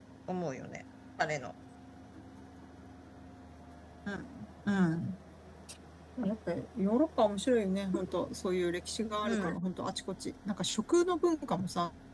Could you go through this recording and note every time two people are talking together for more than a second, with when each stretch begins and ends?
none

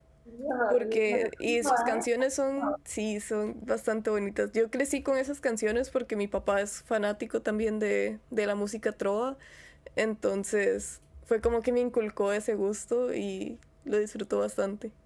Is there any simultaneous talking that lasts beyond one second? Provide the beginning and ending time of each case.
0.7-2.0

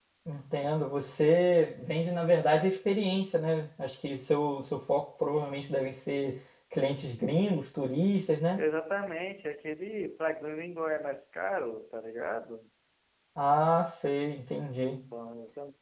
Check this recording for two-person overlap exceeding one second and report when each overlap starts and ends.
none

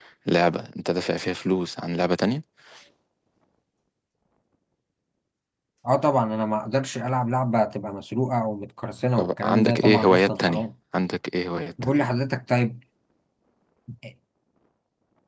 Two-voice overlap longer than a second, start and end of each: 9.2-10.6

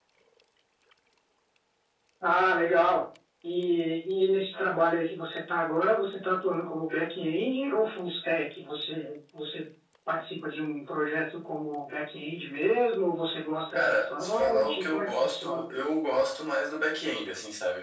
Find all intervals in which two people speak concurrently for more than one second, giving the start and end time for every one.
13.7-15.6

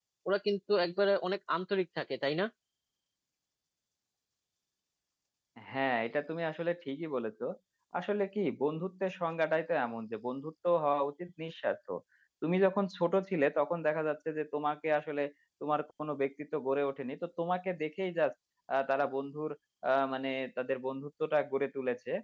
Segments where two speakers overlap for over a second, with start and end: none

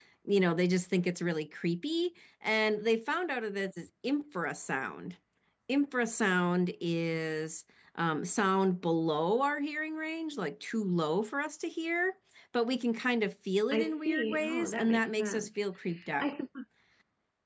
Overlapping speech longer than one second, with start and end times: 13.7-15.6

